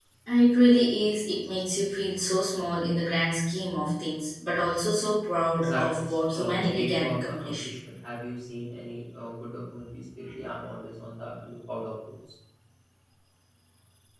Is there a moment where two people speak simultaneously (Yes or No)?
Yes